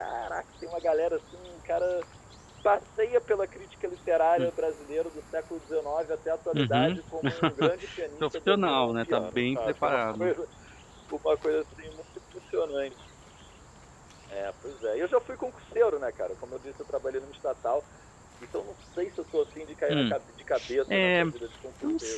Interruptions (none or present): present